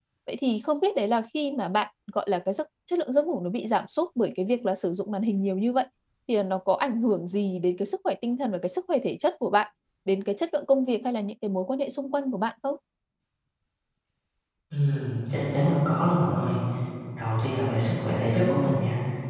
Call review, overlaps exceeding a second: none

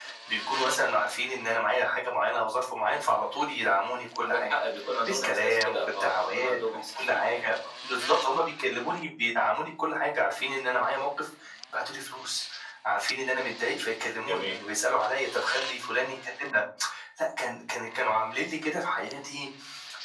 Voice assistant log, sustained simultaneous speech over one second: present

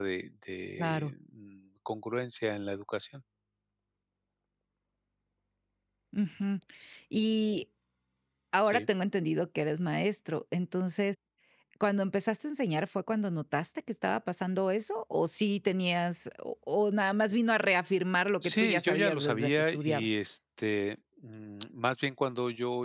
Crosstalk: present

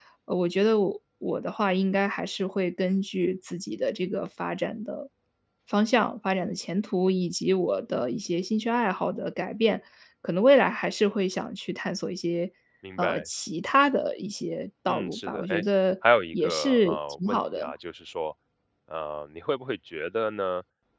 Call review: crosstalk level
present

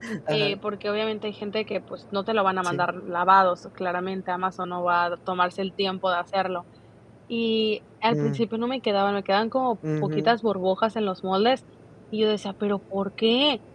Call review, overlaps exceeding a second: none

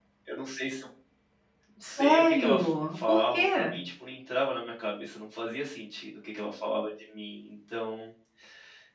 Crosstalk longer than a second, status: present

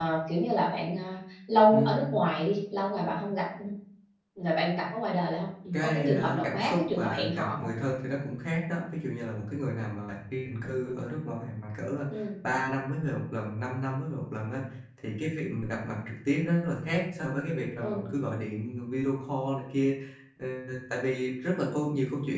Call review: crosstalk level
present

